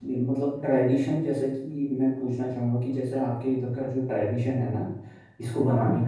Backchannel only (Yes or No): Yes